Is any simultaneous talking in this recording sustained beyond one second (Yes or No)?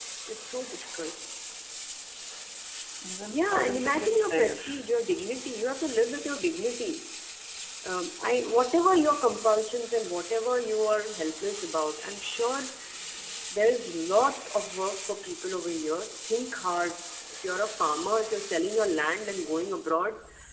Yes